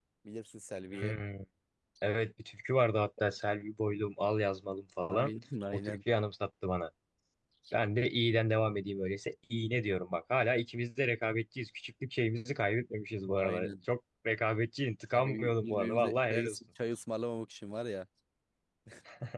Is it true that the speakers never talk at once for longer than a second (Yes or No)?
No